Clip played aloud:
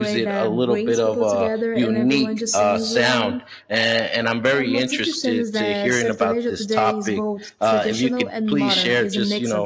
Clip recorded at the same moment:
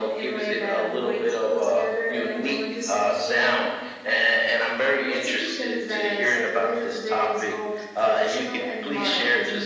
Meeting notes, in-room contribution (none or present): none